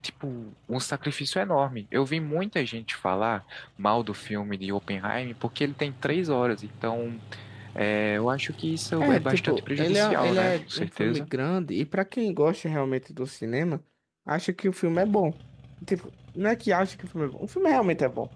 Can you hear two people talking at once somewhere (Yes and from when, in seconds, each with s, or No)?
Yes, from 9.0 s